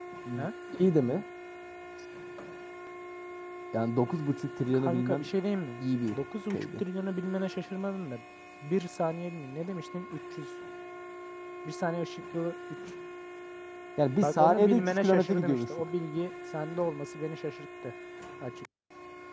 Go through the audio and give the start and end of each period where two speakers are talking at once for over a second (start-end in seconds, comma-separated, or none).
14.2-15.9